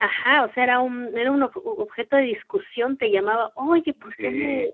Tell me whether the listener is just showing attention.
Yes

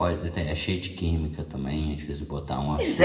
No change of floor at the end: No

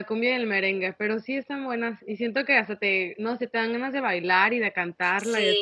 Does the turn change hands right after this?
Yes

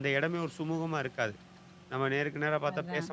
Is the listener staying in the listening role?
Yes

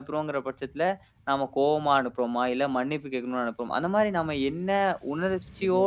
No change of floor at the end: Yes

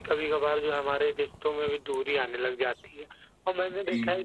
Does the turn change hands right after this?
No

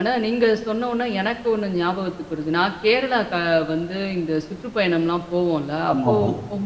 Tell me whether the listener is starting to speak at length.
No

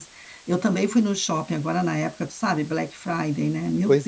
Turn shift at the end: Yes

